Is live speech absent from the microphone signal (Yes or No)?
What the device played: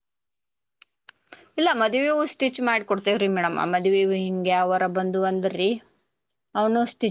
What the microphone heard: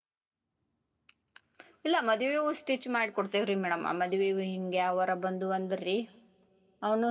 Yes